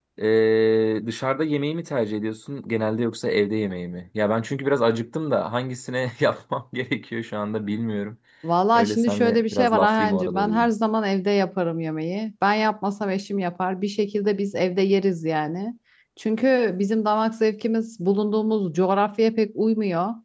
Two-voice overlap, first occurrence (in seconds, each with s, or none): 8.8 s